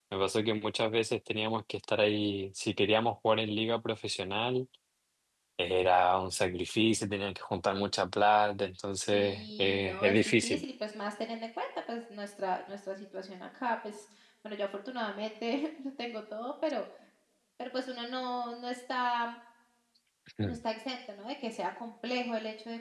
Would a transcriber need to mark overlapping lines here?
Yes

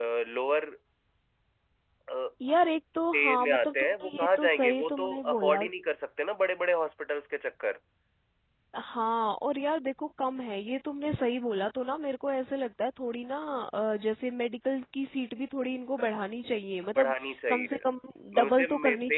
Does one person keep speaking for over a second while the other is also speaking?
Yes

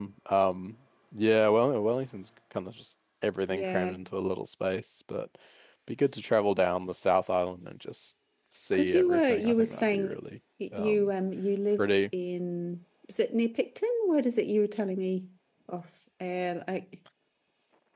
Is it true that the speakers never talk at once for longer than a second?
No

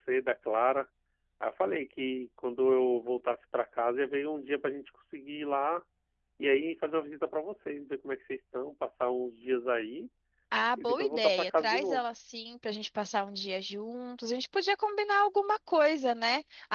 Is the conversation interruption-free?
No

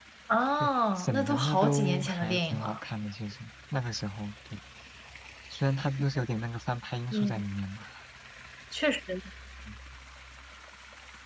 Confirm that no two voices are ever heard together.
No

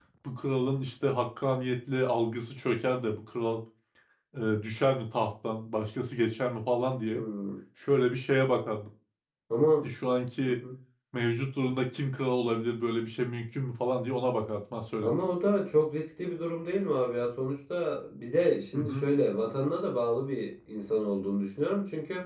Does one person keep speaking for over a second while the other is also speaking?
No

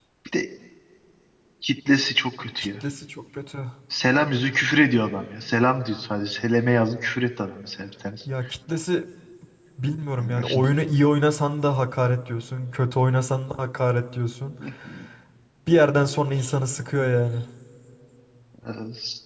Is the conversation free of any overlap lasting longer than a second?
Yes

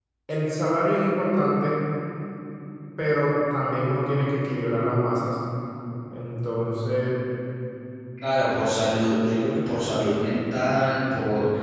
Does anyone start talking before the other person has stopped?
No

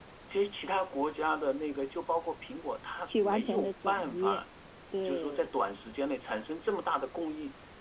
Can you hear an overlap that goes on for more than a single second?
Yes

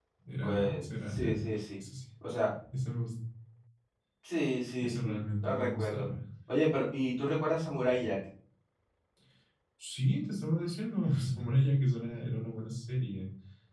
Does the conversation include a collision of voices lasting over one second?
Yes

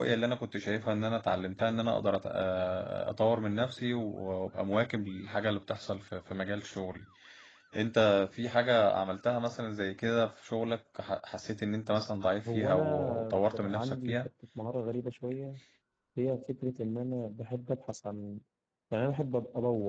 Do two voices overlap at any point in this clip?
Yes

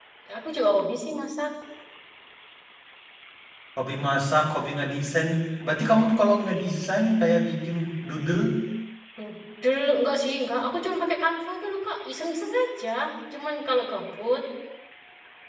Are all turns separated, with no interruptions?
Yes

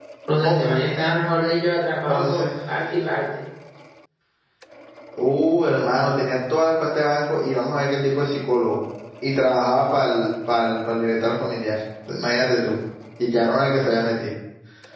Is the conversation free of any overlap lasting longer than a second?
Yes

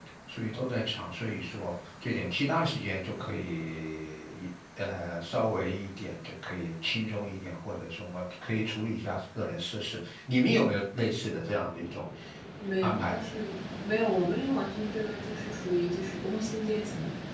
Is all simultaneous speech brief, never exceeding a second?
Yes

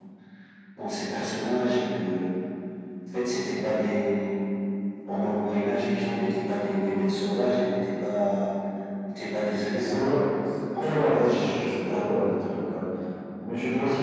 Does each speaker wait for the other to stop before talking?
No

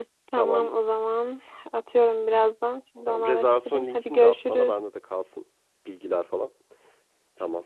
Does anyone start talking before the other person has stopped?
Yes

